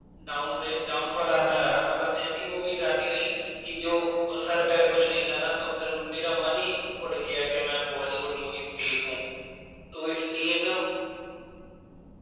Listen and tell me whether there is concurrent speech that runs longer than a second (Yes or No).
No